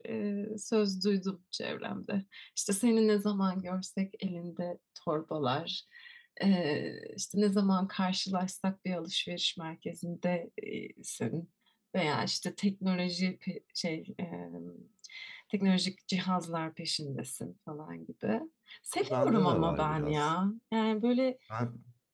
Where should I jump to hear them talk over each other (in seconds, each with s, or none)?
19.0 s